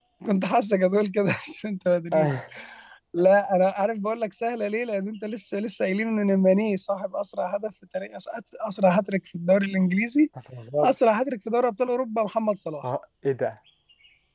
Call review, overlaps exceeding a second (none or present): none